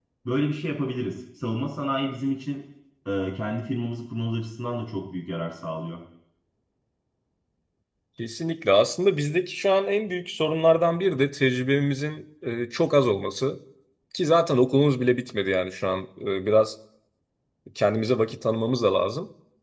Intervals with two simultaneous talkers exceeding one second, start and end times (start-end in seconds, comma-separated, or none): none